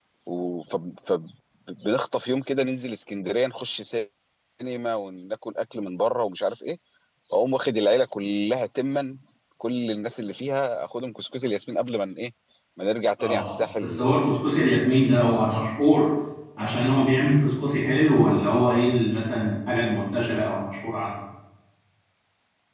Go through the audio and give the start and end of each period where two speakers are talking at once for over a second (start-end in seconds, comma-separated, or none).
13.2-14.8